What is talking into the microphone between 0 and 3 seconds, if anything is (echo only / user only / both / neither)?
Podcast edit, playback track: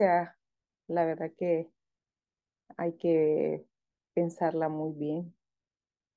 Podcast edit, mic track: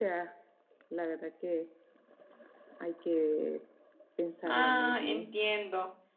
echo only